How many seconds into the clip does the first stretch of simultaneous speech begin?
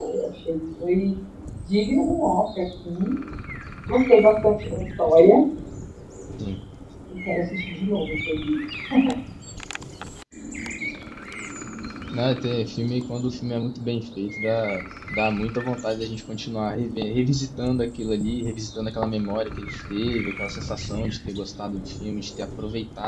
none

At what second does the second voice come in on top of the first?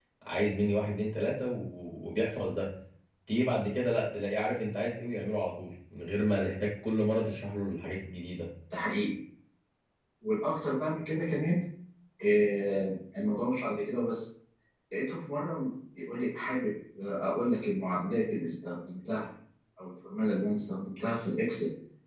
none

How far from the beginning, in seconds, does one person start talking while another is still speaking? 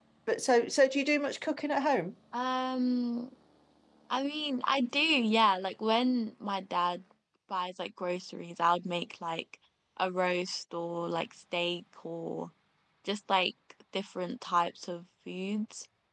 none

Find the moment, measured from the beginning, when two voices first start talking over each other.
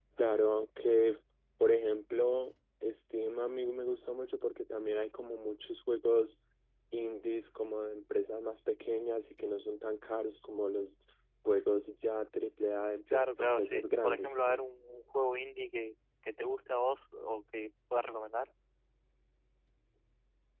13.1 s

